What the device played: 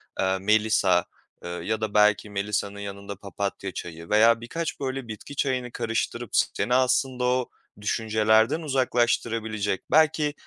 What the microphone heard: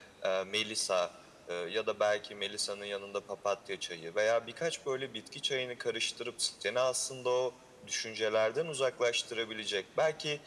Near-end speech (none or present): none